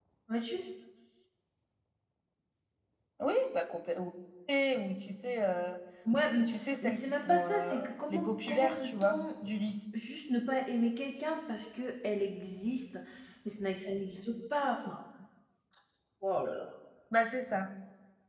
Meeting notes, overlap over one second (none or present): present